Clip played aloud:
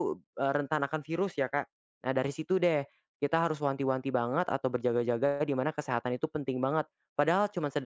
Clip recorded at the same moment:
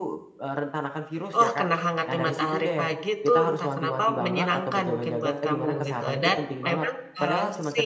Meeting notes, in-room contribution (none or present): present